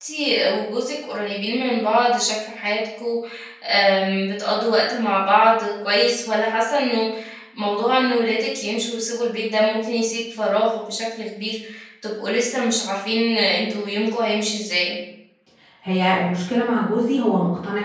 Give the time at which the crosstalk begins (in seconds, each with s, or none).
none